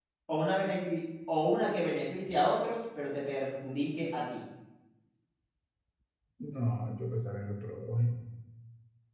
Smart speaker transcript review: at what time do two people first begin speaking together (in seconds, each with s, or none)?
none